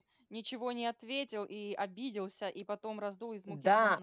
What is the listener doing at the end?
taking over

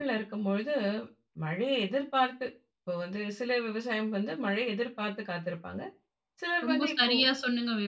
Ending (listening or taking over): taking over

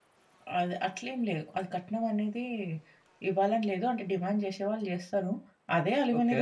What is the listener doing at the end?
listening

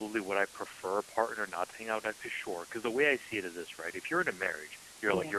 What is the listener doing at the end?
listening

